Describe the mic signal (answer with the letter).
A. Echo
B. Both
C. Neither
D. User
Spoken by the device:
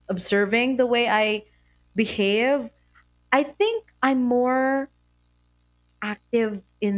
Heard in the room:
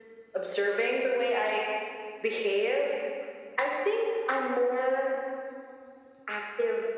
A